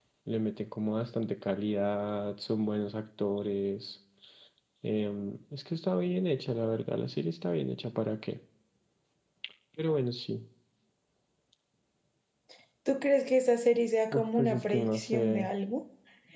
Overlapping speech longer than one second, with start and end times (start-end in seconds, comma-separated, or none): 14.1-15.5